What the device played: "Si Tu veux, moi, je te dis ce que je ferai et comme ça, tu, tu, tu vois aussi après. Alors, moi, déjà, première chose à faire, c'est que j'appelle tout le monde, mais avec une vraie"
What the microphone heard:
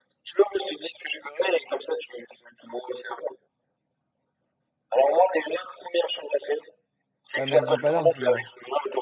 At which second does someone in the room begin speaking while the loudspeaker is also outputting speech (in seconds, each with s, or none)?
7.4 s